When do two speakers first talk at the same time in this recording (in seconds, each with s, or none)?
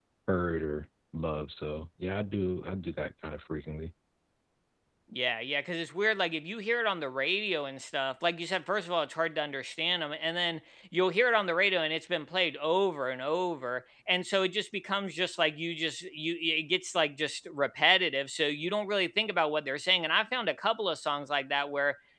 none